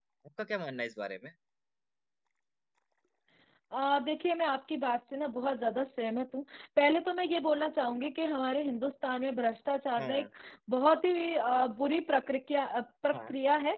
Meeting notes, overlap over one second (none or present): none